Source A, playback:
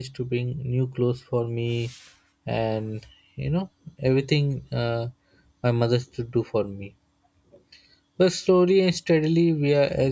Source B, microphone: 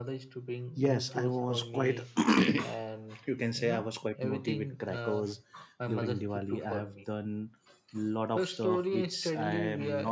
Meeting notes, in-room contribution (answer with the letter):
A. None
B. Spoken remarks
B